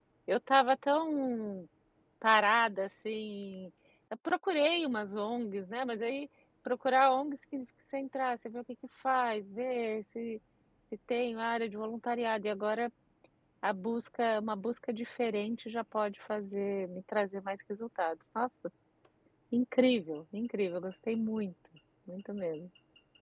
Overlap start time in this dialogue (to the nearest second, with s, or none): none